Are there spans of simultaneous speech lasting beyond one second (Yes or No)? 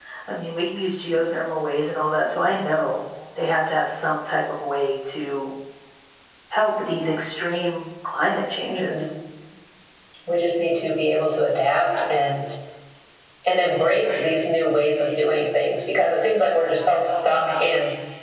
No